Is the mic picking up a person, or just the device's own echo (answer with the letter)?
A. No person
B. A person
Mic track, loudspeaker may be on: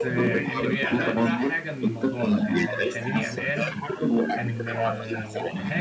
B